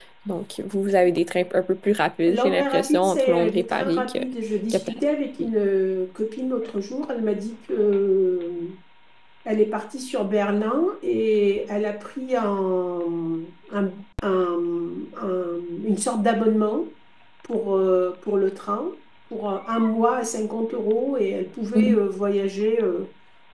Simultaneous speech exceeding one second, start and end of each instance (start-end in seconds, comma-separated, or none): 2.3-4.2